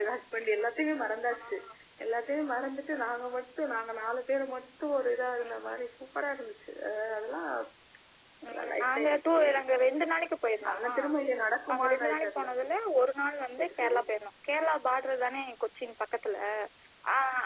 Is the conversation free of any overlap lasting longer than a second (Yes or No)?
No